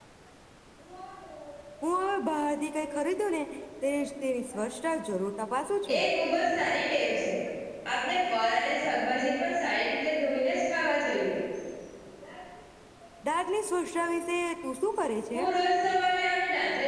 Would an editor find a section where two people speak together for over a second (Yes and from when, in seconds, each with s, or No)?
No